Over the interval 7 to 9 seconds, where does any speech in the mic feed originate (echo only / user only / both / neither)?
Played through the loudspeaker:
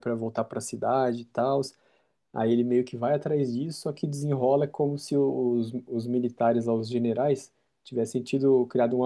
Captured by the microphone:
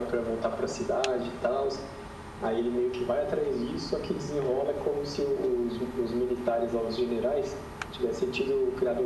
echo only